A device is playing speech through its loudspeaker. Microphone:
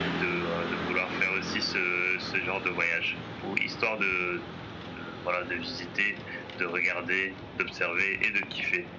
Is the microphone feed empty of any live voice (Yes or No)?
Yes